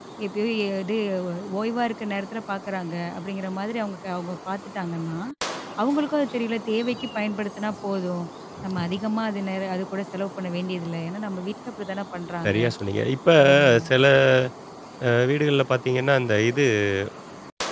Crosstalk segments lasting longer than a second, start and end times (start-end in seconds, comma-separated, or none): none